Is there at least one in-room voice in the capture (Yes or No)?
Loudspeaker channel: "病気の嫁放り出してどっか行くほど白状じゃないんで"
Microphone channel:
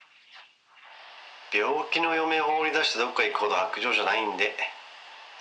No